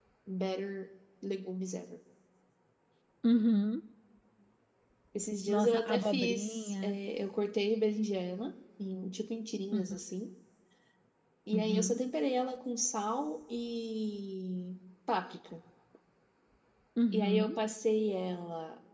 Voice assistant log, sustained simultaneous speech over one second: present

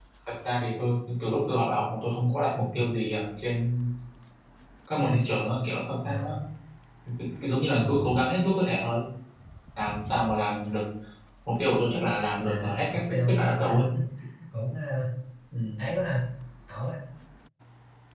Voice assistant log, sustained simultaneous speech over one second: present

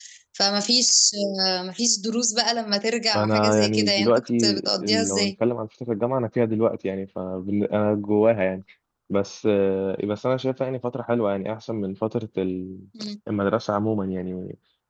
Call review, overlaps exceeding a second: present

